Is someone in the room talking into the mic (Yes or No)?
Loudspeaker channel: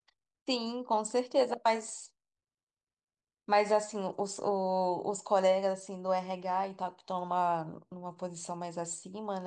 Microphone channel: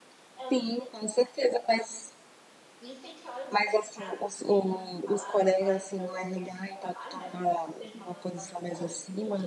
Yes